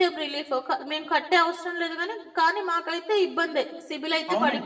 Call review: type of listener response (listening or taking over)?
taking over